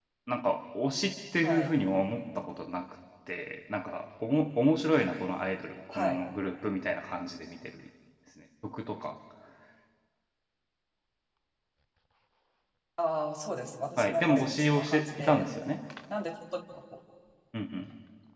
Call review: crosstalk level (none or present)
present